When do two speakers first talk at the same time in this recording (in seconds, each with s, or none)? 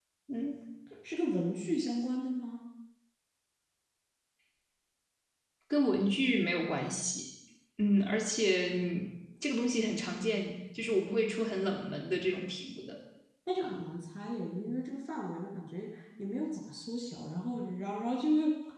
none